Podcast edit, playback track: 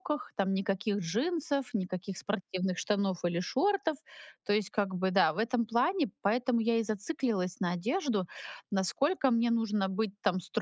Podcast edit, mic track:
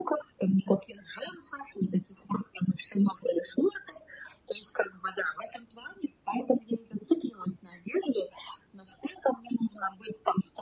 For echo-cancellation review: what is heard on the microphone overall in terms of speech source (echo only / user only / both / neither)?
echo only